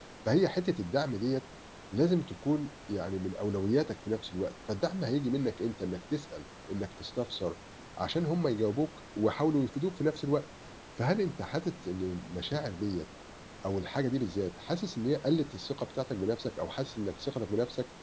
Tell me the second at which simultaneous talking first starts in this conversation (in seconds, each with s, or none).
none